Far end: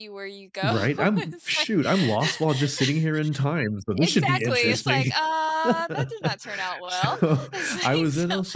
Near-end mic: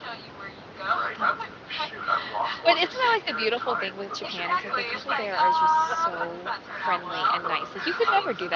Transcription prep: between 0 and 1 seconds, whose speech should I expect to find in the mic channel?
echo only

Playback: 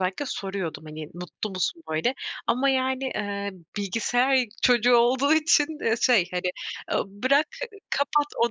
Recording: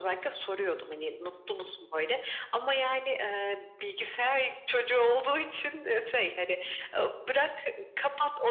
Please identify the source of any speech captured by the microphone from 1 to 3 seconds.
echo only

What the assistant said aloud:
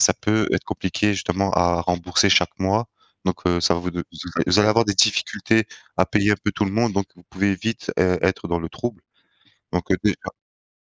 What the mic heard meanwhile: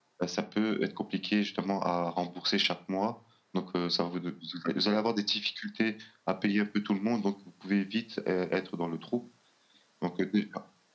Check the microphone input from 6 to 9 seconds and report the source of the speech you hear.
echo only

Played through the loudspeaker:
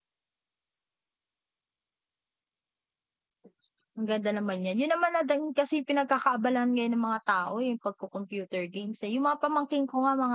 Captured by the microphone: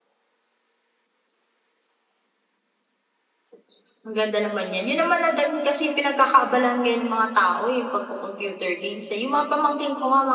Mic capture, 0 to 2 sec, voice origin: neither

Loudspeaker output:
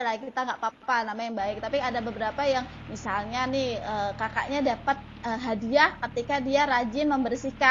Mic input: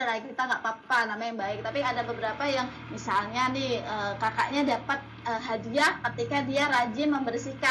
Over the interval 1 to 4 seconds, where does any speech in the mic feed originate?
echo only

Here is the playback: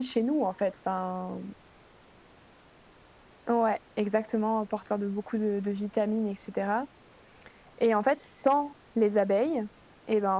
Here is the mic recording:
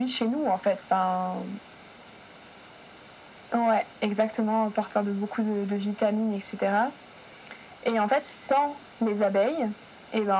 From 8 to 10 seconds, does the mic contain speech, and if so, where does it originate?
echo only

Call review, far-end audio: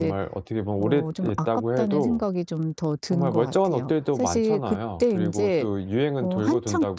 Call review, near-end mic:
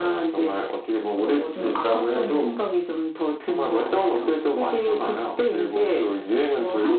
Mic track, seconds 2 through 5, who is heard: echo only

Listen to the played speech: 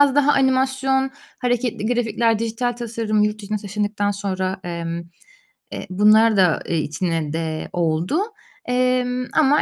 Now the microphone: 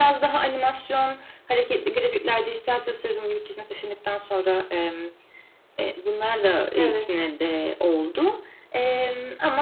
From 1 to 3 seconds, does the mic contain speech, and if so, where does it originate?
echo only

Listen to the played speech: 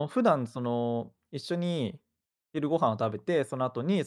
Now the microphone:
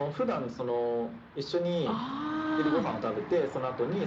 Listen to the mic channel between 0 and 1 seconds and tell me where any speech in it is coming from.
echo only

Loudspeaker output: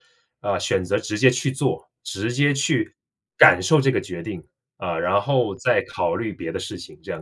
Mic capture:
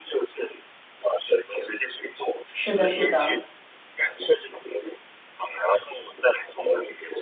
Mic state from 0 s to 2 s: echo only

